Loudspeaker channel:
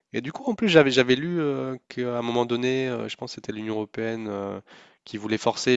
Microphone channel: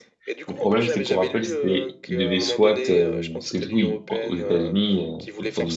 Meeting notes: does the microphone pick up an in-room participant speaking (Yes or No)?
Yes